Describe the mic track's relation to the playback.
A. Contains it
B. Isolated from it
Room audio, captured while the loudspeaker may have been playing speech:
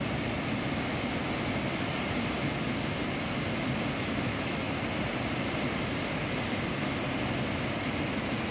B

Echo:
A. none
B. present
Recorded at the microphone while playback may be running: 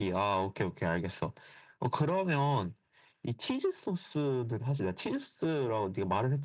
B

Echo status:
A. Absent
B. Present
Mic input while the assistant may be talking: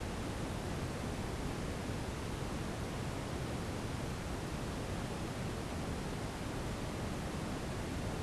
A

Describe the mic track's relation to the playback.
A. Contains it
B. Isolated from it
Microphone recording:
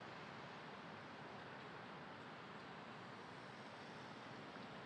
B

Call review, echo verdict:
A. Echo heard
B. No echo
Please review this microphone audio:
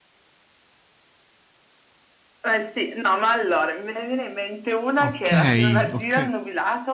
A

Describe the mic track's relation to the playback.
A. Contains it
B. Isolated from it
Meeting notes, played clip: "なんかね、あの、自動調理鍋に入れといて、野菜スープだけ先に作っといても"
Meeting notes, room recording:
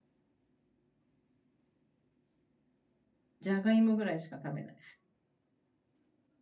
B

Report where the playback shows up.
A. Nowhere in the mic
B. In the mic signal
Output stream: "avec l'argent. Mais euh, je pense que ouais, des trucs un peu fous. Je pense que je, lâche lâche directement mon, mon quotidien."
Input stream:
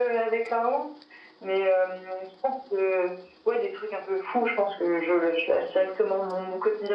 B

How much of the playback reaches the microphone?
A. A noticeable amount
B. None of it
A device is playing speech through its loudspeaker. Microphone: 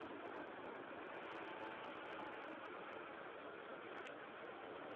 B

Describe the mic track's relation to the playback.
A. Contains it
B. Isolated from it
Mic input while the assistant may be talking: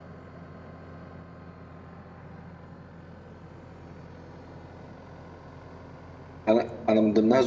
B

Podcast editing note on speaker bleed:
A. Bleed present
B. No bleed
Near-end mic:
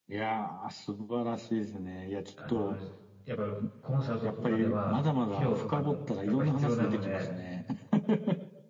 A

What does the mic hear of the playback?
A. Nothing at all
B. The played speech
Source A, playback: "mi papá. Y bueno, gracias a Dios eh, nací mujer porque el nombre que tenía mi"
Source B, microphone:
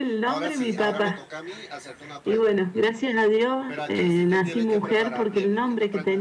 B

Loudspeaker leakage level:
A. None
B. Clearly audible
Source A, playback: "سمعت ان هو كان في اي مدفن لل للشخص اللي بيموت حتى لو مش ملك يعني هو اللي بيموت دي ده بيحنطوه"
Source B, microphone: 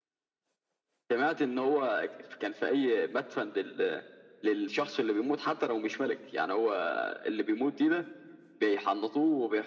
B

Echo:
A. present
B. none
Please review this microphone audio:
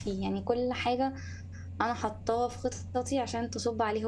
B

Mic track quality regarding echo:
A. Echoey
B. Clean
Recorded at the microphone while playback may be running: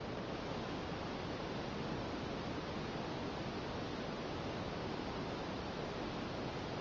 B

